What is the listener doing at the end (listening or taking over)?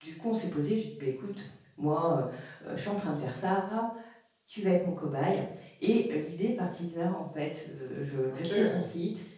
listening